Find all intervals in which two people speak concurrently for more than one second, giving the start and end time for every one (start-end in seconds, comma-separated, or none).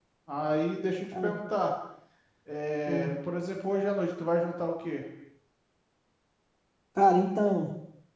none